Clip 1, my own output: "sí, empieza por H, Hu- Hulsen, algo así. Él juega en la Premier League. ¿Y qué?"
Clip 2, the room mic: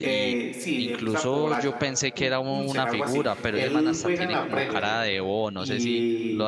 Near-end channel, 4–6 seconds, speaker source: both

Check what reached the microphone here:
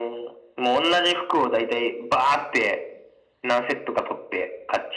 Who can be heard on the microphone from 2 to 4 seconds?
echo only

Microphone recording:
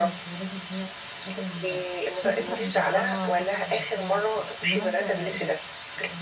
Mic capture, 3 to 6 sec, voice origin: both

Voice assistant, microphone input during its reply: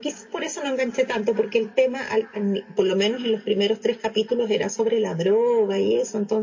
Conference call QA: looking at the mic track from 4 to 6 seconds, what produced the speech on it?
echo only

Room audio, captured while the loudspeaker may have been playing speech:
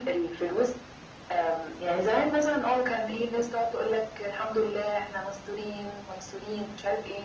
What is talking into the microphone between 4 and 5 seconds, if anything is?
echo only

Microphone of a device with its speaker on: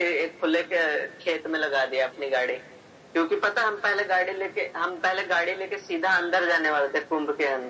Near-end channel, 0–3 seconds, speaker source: echo only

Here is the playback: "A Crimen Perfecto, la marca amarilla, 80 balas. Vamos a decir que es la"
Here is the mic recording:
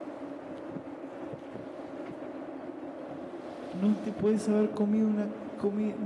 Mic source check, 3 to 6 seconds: user only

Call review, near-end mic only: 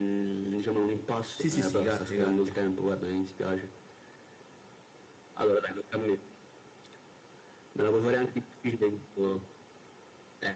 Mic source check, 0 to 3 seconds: both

